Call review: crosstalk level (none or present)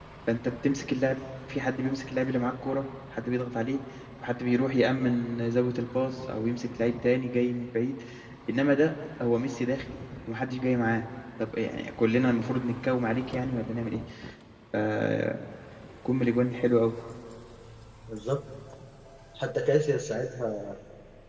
none